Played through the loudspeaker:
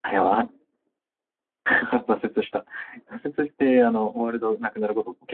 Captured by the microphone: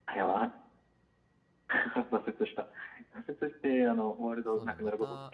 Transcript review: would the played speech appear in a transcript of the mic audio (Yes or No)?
Yes